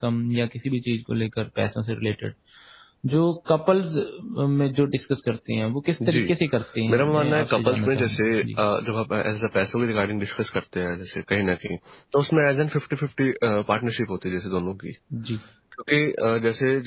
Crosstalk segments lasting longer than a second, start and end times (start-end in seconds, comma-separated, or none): 6.9-8.6